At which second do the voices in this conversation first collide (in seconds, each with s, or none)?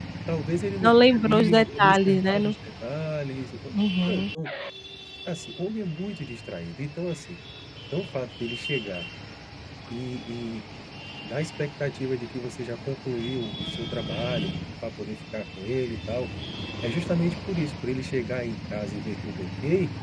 0.8 s